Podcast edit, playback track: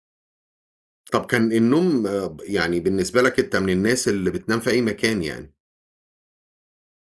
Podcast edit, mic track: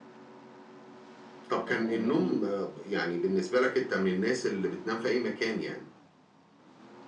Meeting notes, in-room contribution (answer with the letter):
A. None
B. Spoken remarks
B